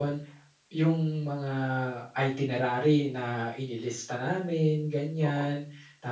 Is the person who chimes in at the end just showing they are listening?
Yes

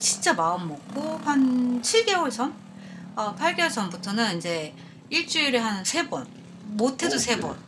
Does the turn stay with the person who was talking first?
Yes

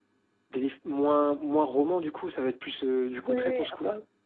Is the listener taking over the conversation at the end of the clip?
Yes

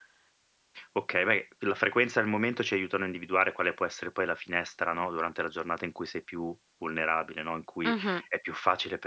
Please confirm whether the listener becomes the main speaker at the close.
No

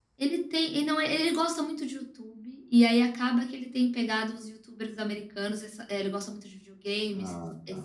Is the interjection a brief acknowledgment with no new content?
Yes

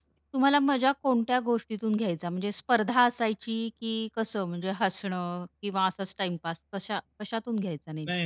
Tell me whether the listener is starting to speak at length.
Yes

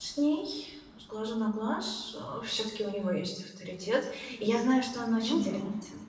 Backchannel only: Yes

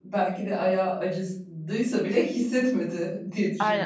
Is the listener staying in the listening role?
No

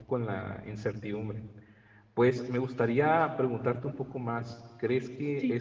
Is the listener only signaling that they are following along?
Yes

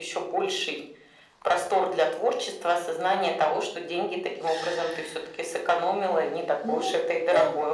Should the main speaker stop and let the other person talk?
Yes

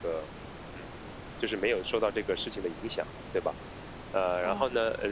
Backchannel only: Yes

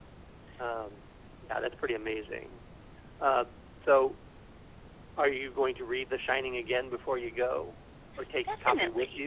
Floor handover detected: Yes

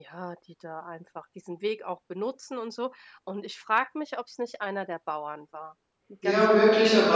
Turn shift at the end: Yes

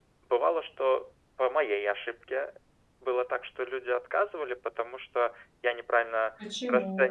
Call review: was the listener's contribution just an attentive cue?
Yes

